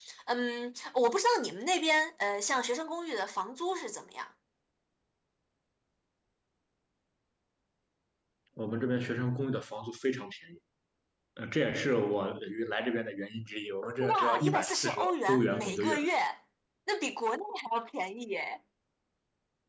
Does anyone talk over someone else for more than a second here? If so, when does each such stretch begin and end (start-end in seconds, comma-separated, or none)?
14.0-16.0